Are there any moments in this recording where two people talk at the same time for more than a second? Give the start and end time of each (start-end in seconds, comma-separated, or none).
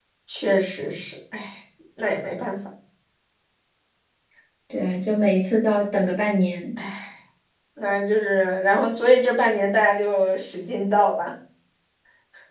none